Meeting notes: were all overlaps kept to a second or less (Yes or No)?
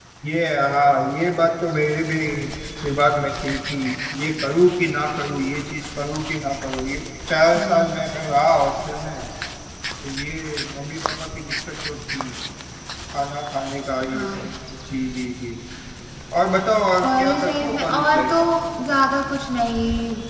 No